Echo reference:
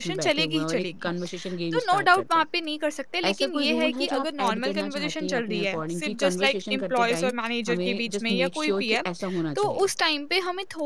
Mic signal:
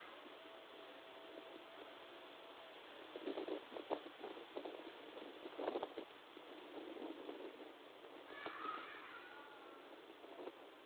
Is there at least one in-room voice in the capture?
No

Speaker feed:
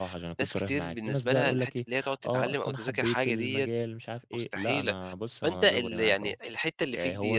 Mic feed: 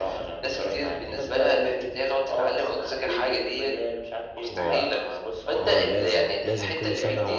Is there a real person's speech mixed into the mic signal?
Yes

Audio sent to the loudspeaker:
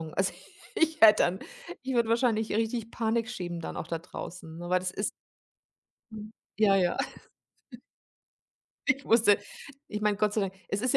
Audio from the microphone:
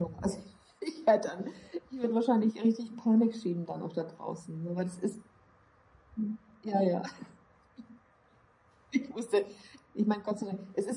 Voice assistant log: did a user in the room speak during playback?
No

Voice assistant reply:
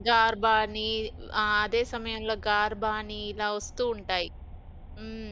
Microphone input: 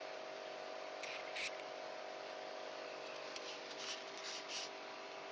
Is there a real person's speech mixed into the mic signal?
No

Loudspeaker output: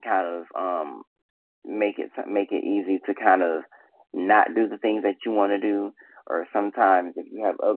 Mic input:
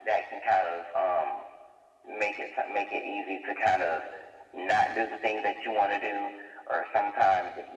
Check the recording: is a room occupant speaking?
No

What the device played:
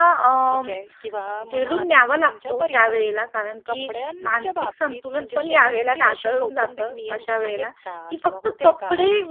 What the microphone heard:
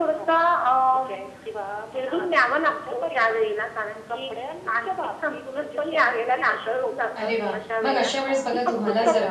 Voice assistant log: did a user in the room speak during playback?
Yes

